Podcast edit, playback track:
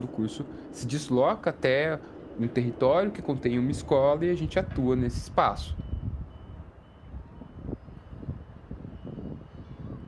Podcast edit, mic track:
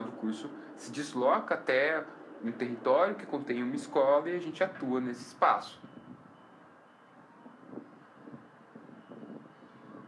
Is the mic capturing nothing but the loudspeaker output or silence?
Yes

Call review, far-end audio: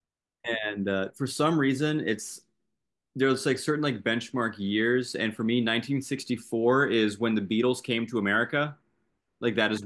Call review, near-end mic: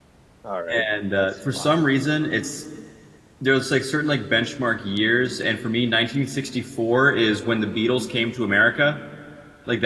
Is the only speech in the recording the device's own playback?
No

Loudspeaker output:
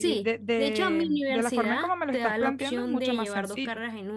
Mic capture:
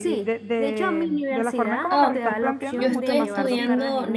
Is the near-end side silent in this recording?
No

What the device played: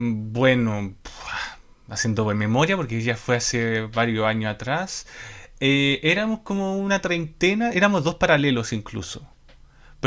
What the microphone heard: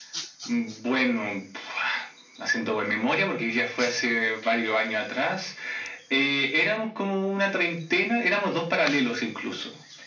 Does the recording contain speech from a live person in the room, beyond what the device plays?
No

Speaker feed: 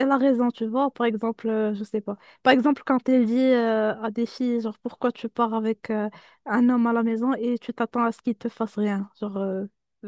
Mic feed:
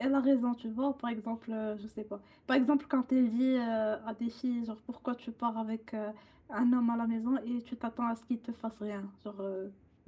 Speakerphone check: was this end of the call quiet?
Yes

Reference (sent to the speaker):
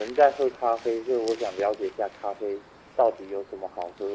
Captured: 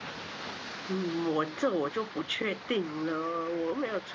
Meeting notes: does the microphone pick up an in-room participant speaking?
Yes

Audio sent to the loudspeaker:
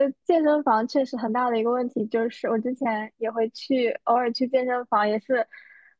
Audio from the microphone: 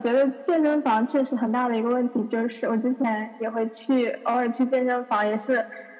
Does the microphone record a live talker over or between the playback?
No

